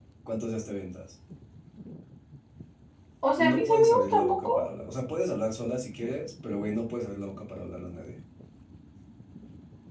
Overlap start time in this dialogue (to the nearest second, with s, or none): 3 s